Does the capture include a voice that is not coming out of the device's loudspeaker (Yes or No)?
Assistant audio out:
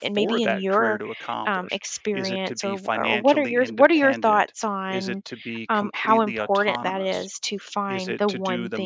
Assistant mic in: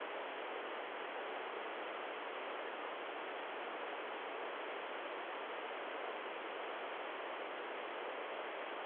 No